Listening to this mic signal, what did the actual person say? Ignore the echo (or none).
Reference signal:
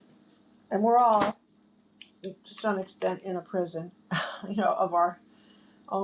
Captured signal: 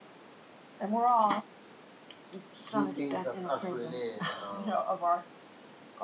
new things that's ushering in, and um,